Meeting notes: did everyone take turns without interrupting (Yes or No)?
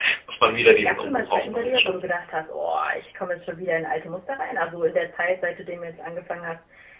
No